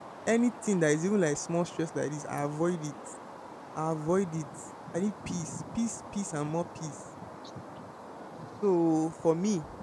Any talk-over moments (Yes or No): No